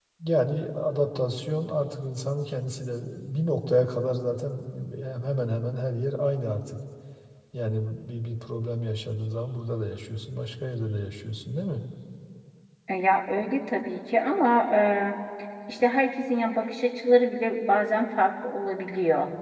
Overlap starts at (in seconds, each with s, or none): none